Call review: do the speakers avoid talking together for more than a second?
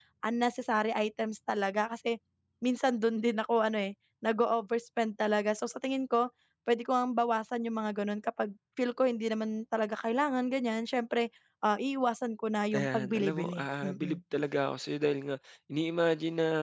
No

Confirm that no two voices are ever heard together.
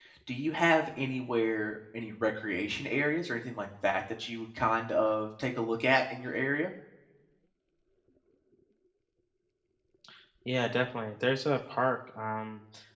Yes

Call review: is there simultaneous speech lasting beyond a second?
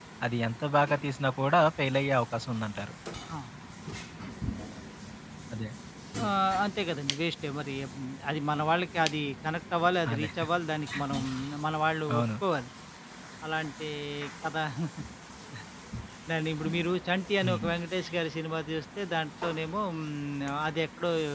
No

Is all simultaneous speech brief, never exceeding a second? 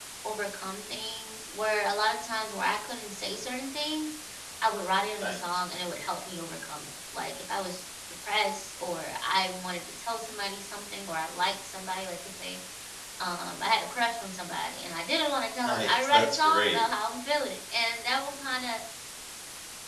No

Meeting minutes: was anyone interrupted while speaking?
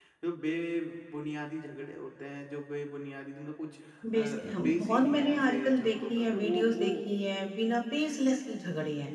Yes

